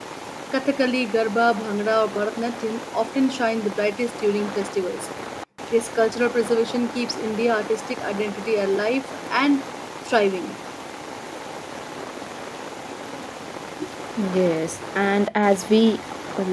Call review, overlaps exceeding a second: none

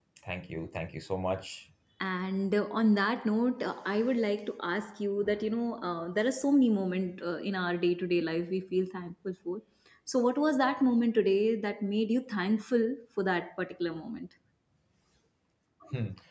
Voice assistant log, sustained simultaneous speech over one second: none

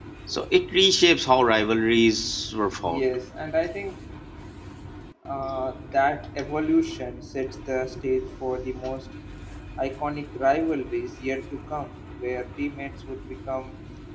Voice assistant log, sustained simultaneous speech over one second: none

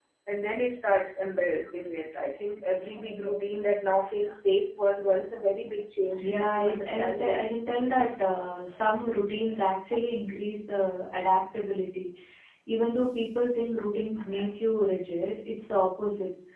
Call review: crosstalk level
present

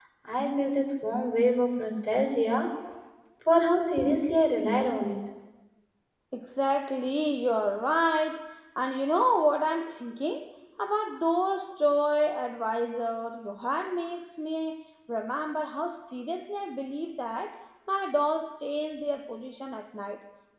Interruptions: none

